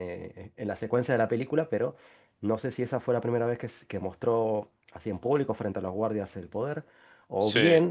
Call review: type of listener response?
listening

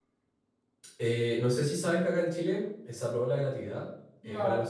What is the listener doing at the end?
listening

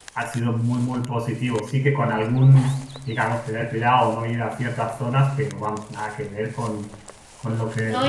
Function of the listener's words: taking over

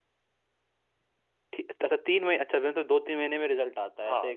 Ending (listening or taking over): taking over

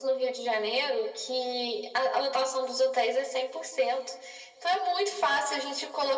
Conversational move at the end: listening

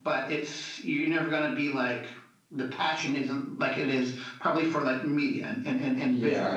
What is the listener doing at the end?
taking over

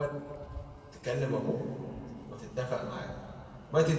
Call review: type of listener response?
listening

